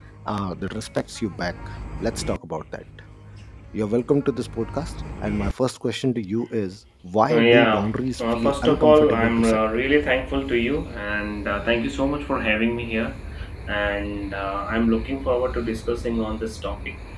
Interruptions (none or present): present